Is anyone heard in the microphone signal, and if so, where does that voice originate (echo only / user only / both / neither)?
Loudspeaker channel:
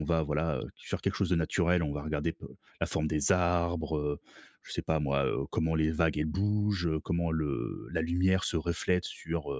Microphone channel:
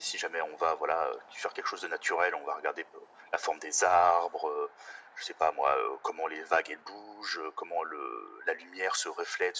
echo only